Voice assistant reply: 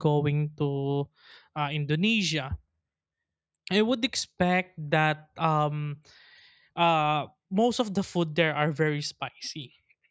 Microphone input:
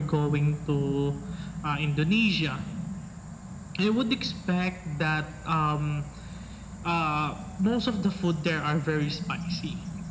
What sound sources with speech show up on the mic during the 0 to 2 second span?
echo only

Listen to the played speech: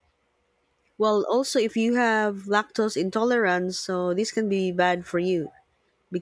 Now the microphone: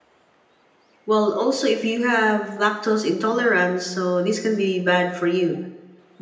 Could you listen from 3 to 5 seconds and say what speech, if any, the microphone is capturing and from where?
echo only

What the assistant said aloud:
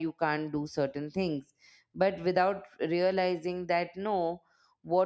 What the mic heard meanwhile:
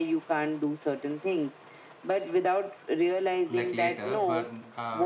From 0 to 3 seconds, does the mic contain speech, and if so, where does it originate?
echo only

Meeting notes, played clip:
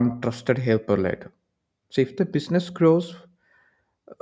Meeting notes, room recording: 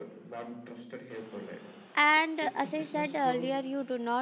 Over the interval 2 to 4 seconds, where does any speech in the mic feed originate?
both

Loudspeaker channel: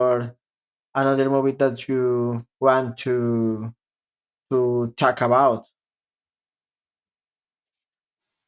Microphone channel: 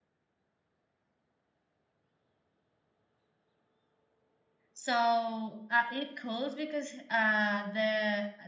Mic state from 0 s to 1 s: neither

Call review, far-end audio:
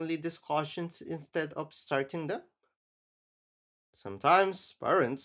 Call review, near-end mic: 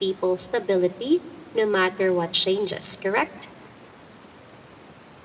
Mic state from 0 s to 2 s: user only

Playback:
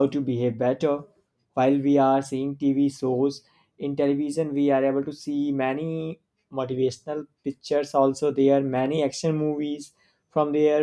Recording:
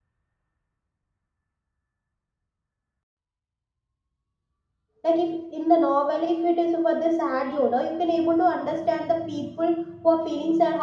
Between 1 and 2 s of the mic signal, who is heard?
neither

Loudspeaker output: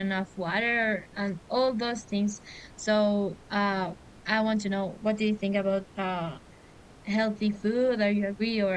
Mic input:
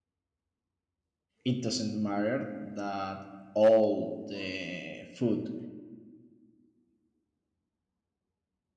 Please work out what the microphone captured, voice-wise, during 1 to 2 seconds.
user only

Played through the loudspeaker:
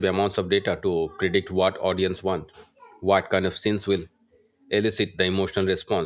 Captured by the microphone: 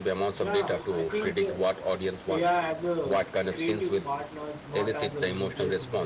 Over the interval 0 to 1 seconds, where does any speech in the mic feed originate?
both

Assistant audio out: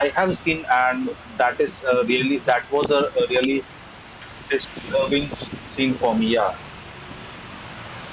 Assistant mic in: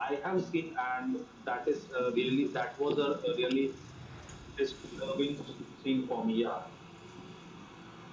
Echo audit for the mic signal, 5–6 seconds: echo only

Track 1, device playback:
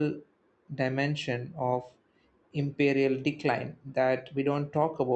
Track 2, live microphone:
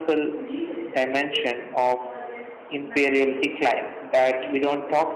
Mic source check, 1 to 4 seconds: both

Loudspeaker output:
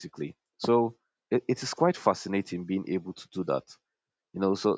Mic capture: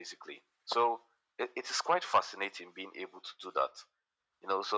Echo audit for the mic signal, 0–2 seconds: echo only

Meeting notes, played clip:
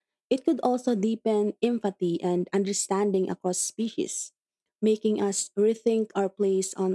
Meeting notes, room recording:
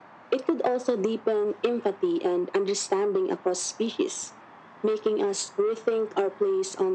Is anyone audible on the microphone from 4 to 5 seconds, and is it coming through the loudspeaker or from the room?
echo only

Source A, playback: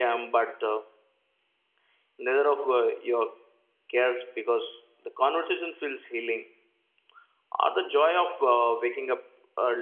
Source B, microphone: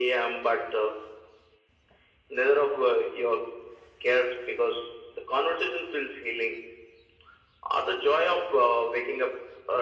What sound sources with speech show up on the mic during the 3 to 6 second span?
echo only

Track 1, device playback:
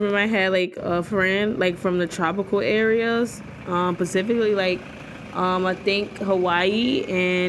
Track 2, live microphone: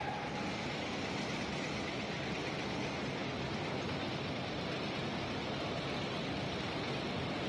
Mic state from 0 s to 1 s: neither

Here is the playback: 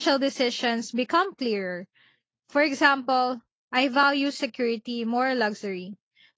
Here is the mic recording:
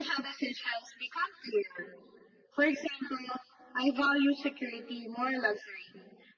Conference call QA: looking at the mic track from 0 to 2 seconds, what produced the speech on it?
echo only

